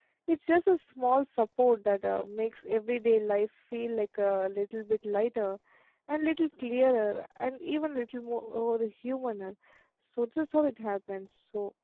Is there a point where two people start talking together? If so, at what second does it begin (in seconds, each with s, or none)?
none